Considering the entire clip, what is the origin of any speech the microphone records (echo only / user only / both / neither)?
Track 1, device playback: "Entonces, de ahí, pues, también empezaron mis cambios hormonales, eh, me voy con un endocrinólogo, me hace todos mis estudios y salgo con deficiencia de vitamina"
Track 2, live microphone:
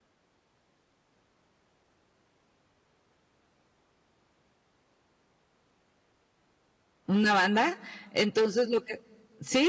user only